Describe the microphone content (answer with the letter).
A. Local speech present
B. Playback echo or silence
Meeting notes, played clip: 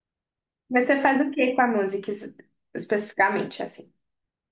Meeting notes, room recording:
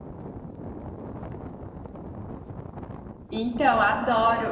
A